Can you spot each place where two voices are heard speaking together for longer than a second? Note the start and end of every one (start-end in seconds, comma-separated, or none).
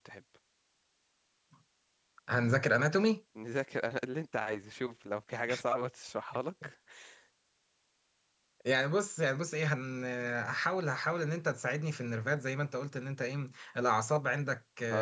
none